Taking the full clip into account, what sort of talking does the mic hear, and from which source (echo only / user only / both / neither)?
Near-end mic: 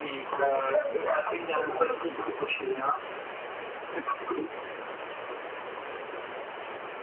echo only